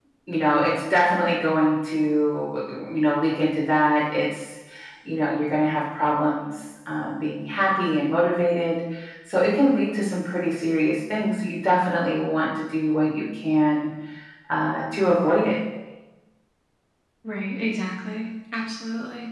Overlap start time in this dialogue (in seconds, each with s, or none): none